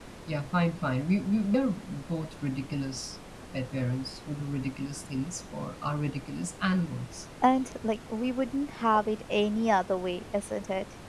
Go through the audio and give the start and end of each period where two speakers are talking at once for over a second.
none

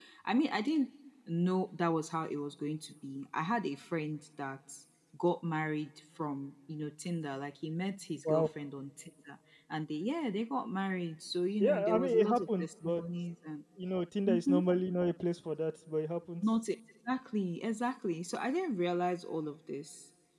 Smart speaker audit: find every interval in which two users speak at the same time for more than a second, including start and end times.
11.6-13.0

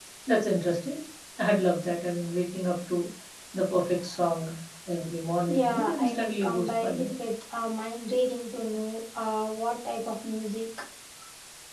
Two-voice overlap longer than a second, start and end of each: 5.4-7.1

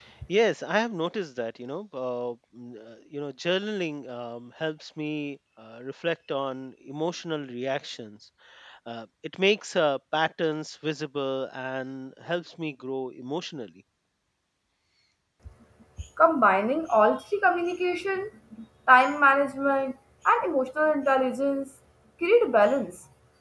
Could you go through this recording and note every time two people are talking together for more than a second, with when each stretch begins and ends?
none

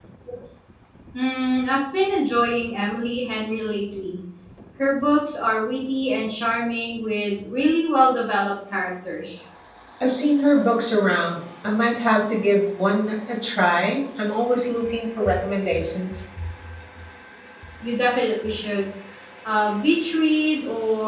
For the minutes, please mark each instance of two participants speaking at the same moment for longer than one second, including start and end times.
none

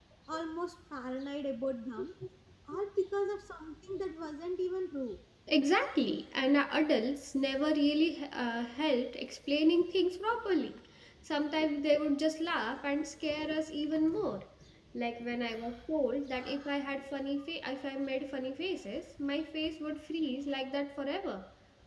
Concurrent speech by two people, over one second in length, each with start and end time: none

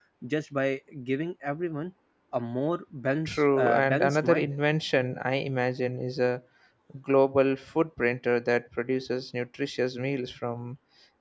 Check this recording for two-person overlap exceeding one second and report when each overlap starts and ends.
3.2-4.5

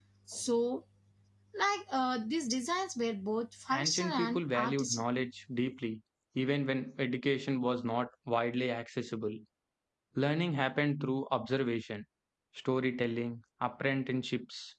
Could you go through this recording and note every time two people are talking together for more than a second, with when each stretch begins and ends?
3.7-5.0

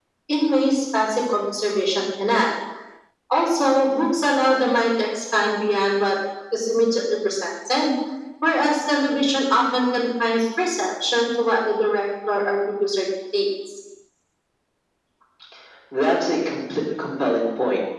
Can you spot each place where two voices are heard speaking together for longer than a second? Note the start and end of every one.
none

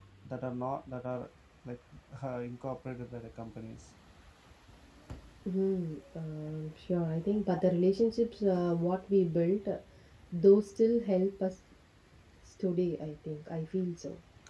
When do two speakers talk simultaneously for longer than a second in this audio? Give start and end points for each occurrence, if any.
none

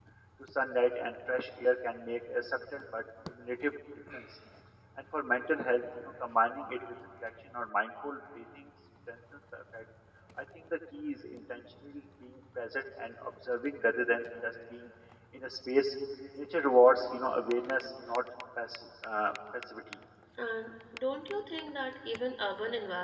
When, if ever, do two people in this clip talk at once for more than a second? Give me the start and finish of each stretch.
none

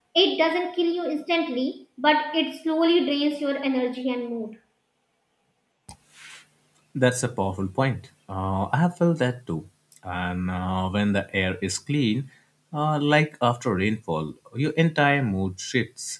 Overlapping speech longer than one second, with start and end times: none

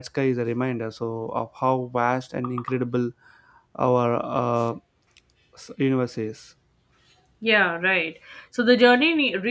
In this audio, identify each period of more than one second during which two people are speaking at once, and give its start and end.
none

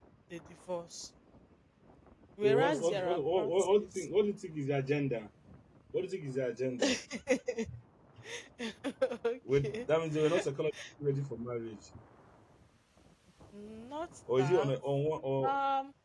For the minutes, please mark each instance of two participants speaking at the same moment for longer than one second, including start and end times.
2.4-4.1

